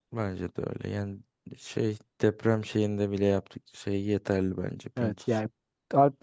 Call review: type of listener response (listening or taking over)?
taking over